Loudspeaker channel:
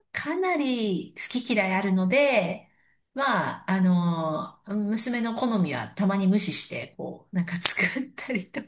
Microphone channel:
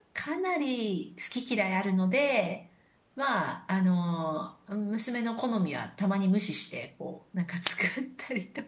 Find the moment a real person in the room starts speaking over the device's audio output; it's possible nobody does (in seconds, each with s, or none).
none